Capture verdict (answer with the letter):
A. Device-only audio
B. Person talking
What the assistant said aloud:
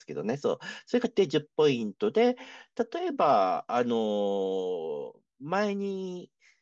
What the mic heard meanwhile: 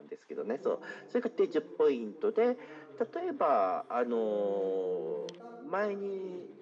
B